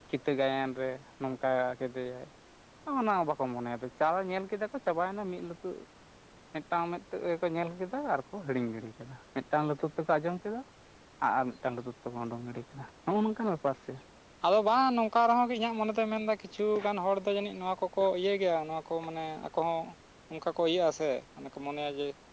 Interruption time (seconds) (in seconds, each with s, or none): none